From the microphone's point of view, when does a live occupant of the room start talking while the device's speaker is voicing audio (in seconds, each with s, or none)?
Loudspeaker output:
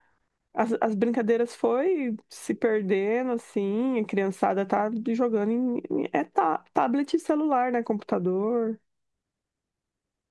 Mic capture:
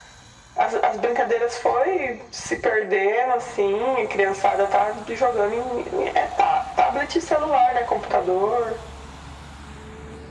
none